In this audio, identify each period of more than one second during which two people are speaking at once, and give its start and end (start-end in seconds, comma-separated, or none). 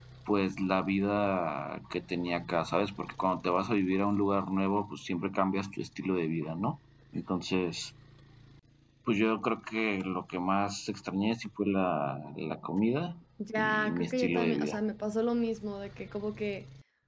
13.6-14.8